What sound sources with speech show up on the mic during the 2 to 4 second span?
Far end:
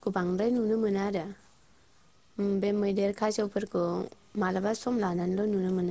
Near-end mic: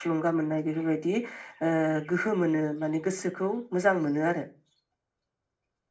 user only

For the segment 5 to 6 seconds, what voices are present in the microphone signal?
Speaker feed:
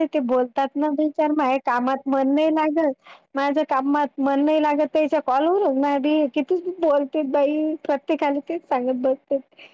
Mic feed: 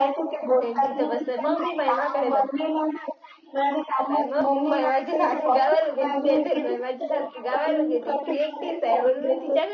both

